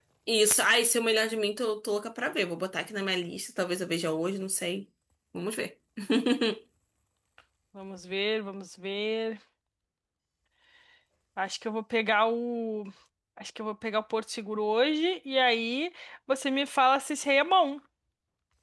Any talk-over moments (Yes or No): No